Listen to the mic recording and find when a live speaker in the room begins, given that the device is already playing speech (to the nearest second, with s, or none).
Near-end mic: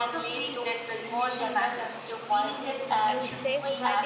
3 s